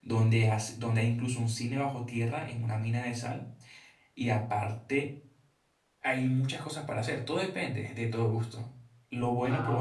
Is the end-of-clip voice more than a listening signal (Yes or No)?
No